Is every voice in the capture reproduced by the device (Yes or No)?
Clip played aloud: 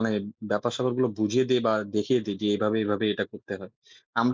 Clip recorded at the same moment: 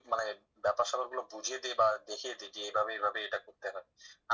Yes